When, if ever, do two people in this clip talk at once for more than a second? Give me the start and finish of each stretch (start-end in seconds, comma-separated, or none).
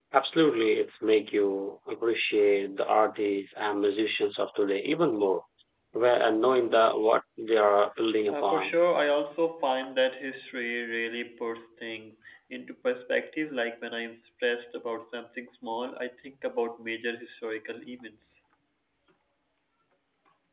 none